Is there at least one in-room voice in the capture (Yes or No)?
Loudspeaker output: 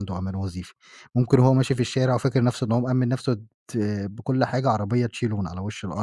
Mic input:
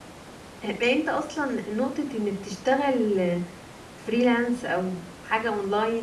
Yes